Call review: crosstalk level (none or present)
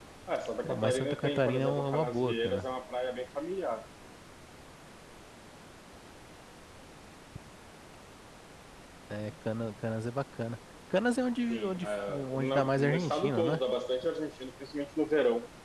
present